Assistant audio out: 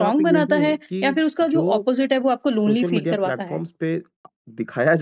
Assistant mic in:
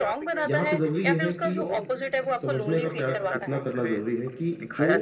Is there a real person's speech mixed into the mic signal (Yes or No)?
Yes